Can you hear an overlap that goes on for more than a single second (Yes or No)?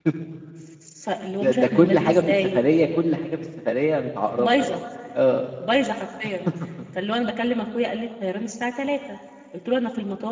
Yes